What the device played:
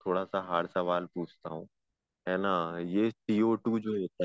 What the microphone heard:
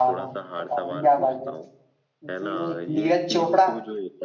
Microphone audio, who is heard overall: both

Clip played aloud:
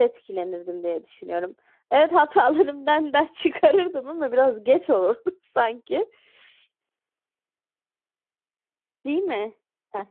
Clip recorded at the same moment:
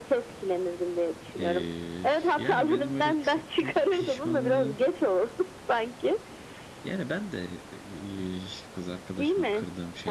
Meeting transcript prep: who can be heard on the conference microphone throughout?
both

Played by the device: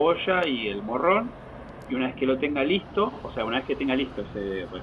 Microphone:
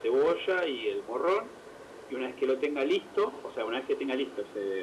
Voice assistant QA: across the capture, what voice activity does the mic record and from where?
echo only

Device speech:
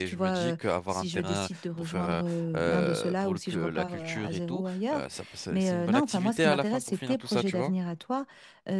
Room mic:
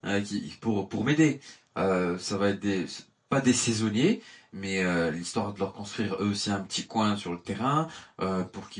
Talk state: user only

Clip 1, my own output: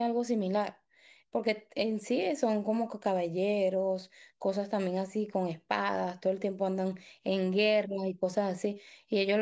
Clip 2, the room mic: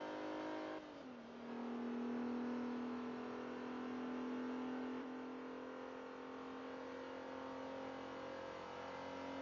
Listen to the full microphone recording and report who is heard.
neither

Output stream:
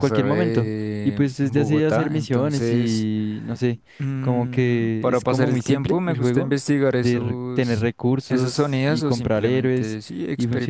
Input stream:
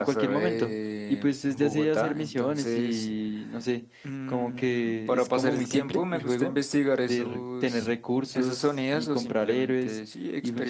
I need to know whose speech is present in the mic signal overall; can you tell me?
echo only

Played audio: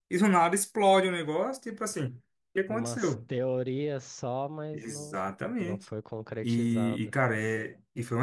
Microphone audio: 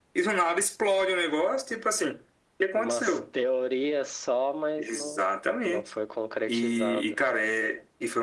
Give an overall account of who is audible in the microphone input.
echo only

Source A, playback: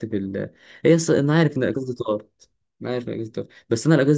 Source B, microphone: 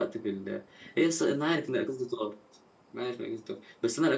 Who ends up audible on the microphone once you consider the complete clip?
echo only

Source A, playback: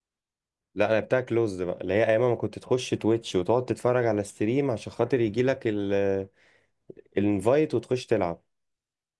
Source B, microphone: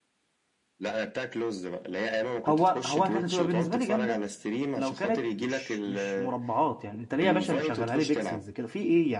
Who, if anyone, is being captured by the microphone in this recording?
both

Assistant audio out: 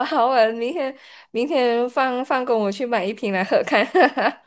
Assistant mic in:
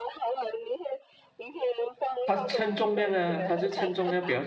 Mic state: both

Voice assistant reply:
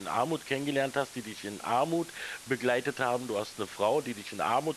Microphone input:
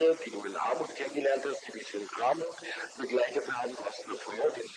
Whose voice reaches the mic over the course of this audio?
echo only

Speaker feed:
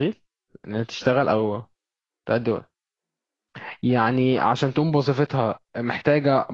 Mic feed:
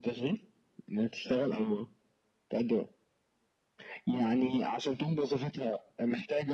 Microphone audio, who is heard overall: echo only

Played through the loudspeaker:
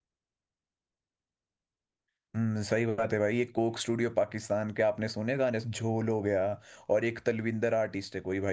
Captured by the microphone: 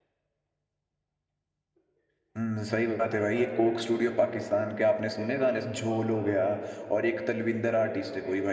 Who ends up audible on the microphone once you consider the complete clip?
both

